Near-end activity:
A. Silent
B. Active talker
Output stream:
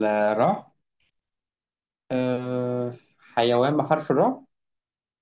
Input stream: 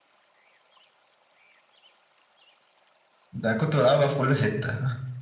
B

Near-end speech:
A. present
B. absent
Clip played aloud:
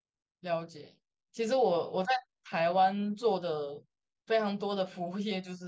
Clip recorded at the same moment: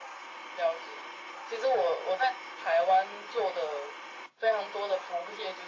B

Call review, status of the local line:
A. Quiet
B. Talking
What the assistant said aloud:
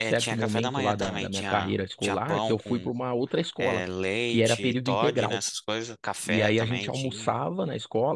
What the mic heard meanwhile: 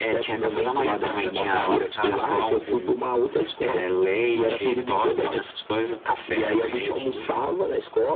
B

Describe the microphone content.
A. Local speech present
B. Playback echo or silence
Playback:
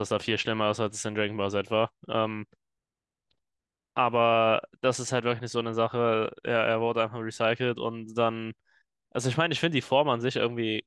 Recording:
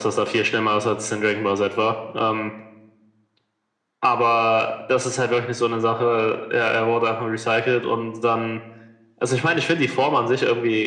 B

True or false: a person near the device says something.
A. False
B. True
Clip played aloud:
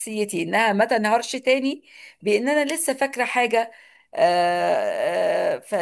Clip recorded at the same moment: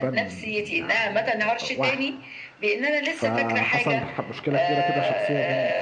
B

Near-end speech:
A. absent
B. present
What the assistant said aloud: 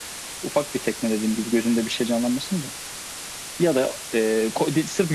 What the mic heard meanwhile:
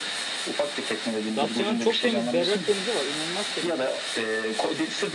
B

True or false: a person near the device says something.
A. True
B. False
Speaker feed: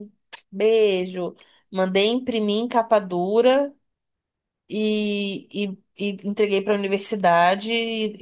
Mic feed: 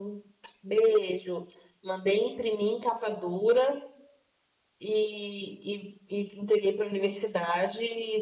B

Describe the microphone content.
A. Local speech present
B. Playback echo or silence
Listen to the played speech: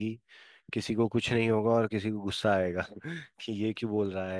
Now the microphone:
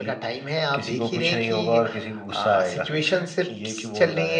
A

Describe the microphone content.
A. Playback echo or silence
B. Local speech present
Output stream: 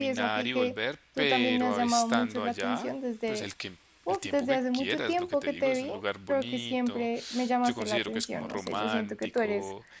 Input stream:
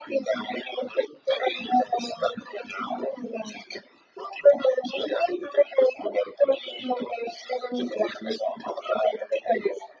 A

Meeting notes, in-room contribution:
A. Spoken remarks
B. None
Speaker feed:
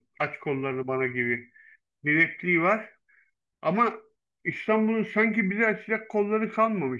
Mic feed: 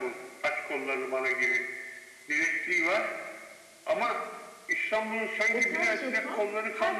A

